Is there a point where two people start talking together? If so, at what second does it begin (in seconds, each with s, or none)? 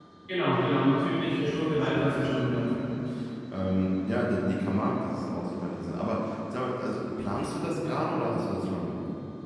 1.2 s